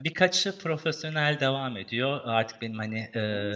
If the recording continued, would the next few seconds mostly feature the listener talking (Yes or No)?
No